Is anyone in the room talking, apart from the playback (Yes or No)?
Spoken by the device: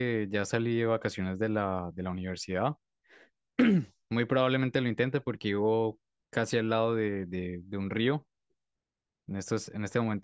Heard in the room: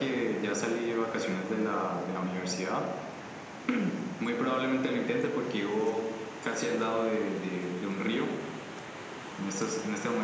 No